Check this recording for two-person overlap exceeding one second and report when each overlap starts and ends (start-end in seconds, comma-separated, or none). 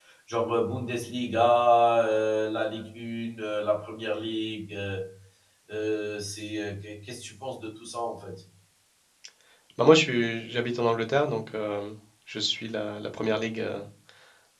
none